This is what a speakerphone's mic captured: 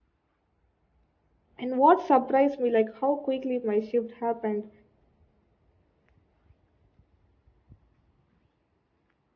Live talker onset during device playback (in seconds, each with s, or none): 1.6 s